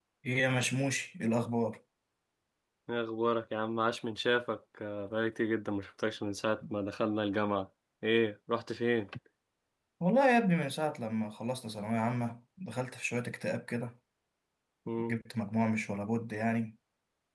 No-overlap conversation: Yes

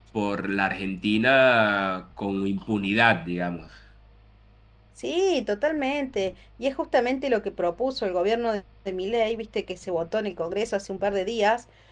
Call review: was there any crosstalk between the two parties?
No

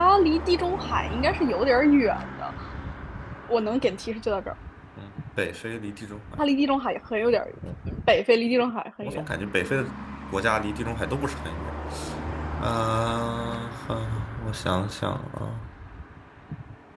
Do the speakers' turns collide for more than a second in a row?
No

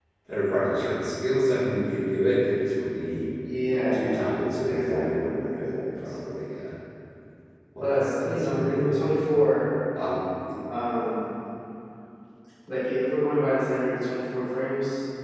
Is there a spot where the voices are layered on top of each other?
Yes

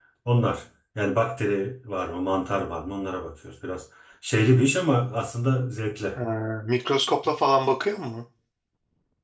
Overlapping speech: No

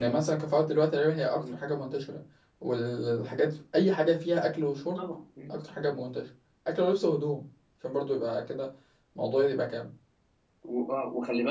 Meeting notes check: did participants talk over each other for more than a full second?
No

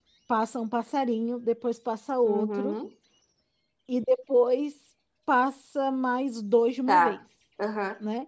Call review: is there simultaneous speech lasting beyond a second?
No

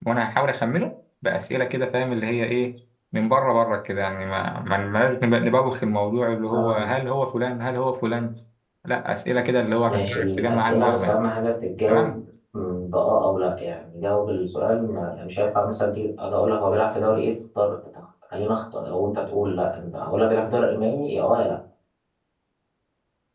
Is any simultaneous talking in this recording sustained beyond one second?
Yes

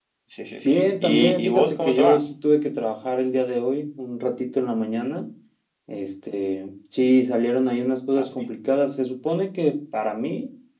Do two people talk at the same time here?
Yes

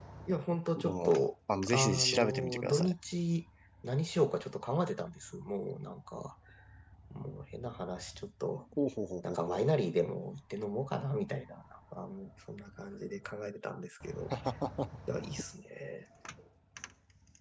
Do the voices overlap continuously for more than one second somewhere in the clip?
Yes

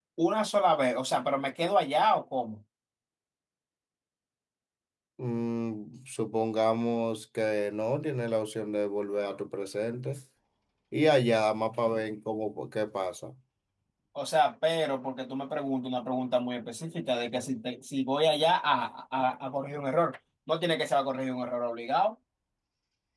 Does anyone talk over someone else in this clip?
No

